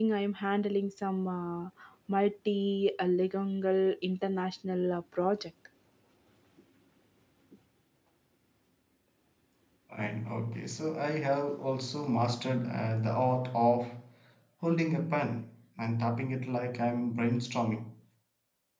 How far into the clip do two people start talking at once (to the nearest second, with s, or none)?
none